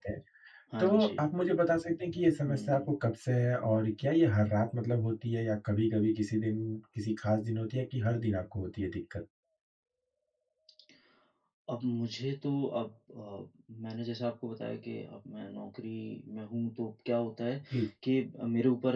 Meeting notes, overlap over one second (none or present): none